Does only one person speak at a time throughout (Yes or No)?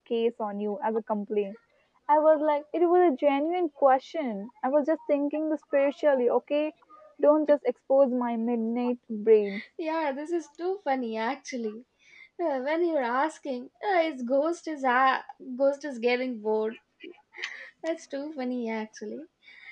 Yes